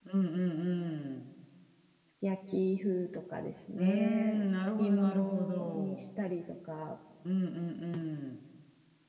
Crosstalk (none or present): present